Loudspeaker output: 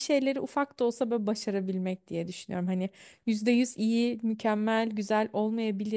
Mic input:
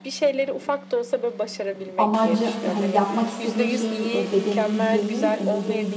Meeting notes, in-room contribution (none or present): present